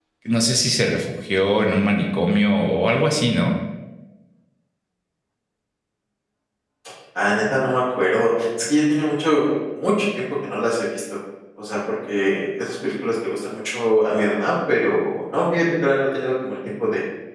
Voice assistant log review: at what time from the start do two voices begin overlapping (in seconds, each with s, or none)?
none